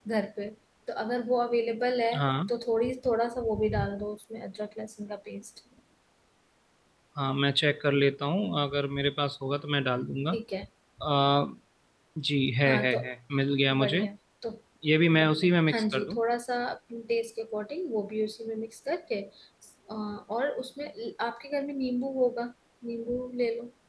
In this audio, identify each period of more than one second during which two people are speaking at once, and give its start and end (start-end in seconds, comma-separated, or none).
none